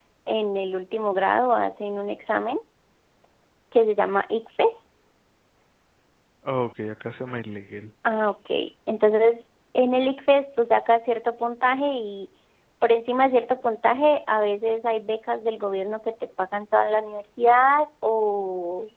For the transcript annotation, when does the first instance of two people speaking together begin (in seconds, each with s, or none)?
none